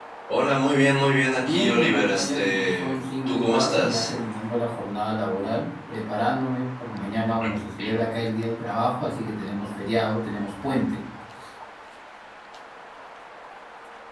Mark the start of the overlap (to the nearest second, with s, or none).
1 s